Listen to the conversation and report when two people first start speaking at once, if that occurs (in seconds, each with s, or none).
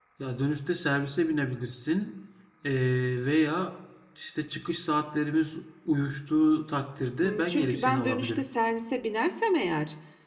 7.2 s